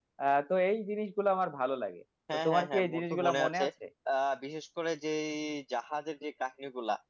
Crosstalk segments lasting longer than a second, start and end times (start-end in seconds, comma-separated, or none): 2.3-3.6